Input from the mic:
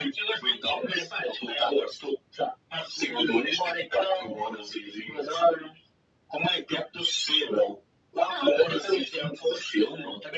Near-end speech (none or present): none